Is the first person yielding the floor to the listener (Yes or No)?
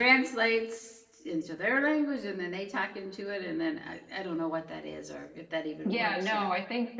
Yes